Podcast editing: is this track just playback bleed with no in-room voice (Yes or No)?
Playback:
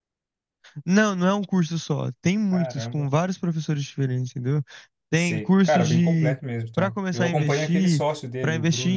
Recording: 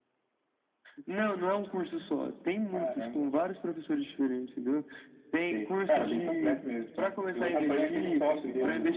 No